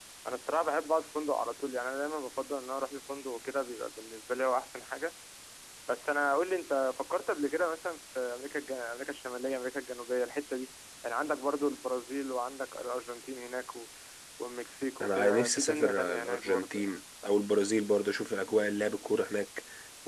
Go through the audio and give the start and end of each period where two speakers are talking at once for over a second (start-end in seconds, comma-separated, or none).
15.0-16.8